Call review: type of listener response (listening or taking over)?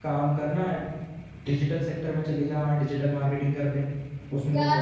taking over